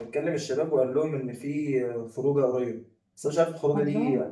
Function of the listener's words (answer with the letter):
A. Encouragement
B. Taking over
A